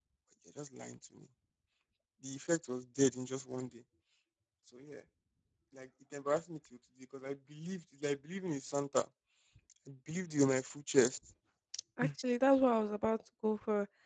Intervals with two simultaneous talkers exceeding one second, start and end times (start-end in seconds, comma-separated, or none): none